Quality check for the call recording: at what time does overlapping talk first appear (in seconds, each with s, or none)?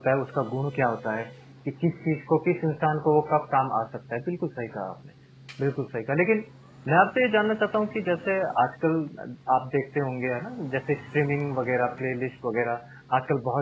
none